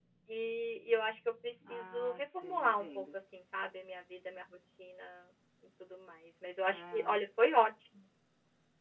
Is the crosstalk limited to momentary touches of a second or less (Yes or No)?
No